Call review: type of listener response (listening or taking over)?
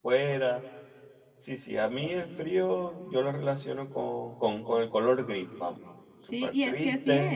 taking over